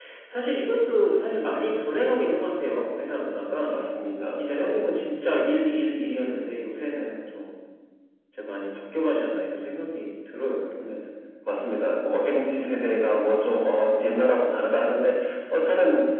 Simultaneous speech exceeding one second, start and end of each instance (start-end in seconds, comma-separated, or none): none